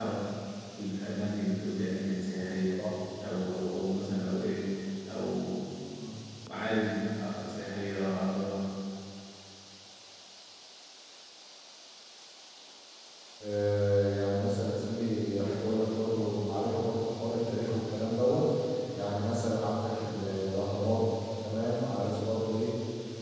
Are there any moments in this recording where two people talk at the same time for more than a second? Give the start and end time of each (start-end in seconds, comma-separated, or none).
none